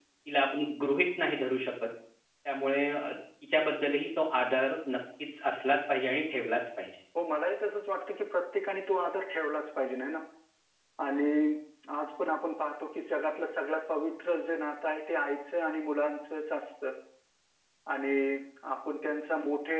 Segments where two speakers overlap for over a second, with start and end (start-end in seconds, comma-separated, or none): none